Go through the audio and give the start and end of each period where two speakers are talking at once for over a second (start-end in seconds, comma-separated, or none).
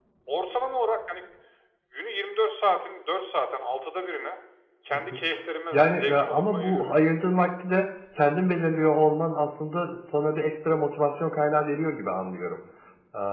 5.7-6.9